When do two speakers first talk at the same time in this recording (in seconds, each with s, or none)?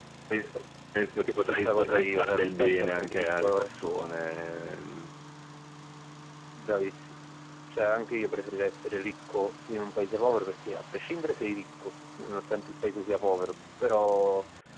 1.4 s